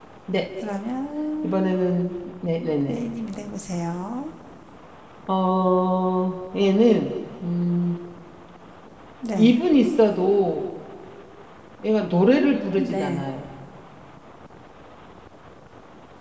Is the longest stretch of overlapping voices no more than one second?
Yes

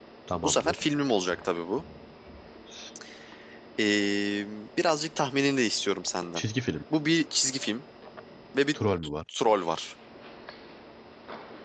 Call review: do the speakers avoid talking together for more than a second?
Yes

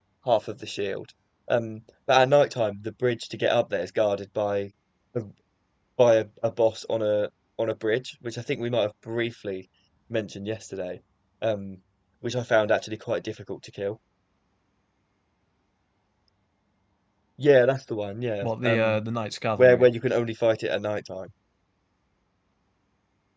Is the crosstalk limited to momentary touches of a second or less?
Yes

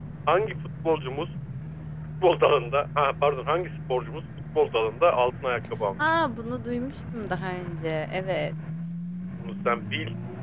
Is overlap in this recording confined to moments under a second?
Yes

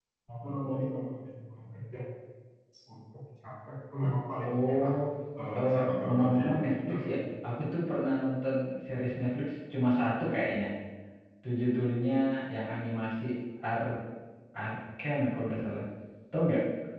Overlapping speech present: Yes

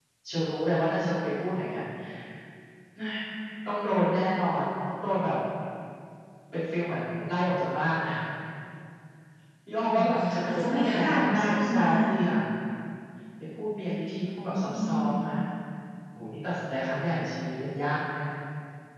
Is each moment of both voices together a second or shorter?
No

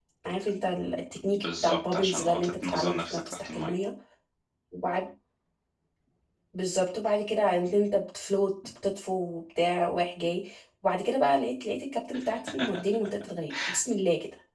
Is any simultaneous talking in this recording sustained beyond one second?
Yes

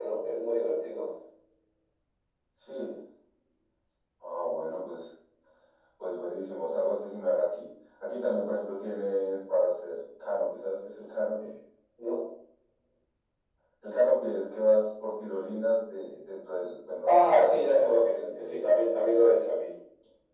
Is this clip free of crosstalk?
No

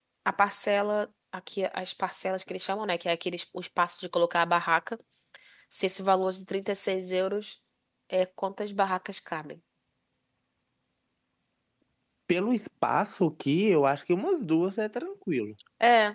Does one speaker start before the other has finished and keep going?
No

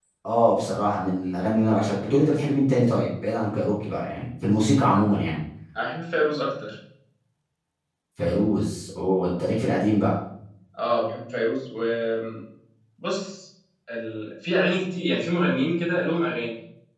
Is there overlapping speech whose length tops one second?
No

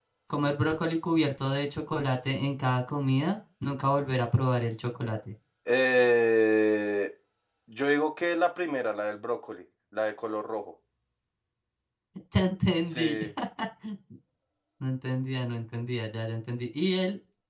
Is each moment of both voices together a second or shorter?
Yes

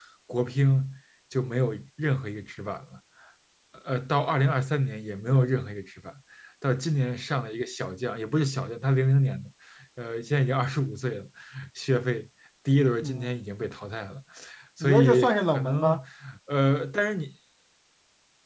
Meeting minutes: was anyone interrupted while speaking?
Yes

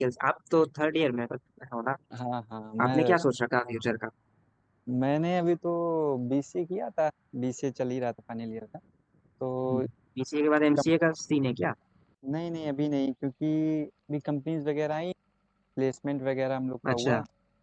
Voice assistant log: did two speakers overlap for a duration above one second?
No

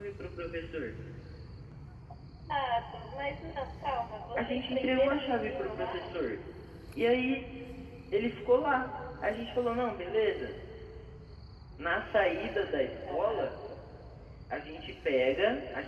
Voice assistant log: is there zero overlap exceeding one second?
No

